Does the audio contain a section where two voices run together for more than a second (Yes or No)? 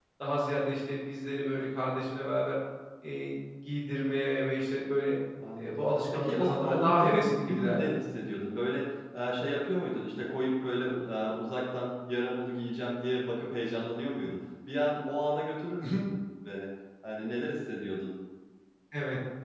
Yes